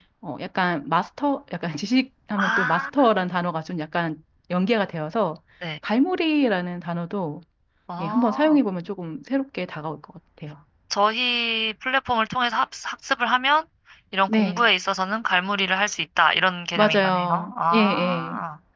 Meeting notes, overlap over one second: present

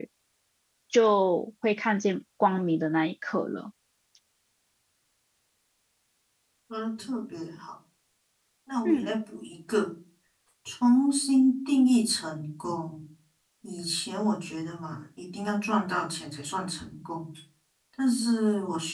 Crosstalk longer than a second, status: none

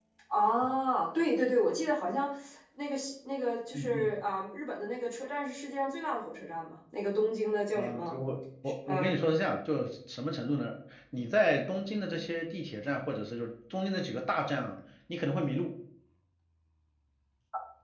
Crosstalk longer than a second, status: none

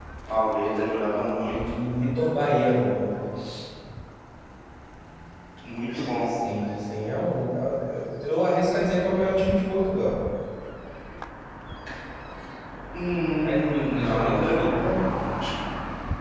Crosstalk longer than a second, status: present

